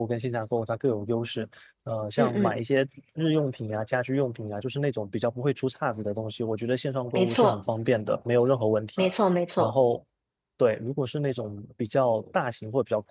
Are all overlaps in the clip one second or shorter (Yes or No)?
Yes